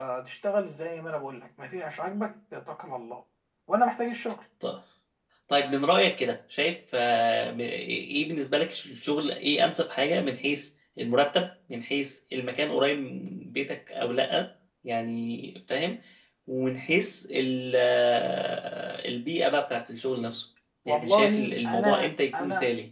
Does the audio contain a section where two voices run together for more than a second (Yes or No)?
Yes